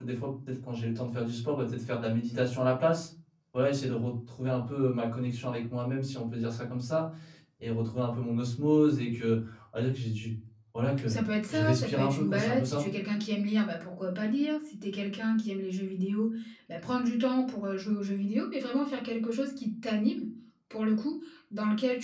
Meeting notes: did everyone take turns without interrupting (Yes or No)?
No